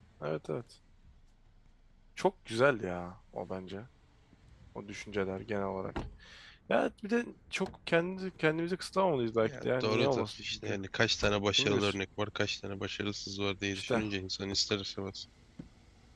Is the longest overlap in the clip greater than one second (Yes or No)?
Yes